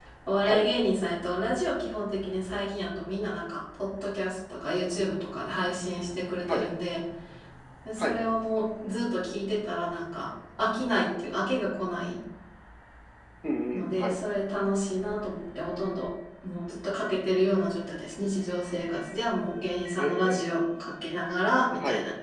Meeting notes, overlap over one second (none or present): none